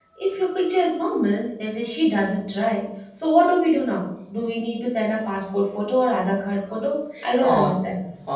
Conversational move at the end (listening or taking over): taking over